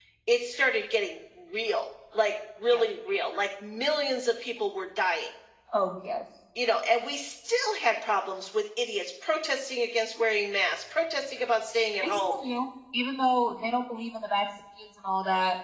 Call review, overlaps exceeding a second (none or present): none